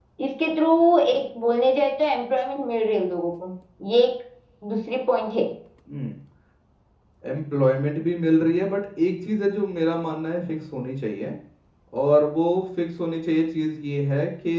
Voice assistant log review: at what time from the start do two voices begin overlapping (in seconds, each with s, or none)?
none